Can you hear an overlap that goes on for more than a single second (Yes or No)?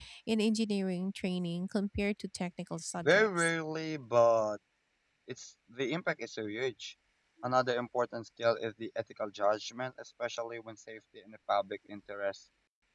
No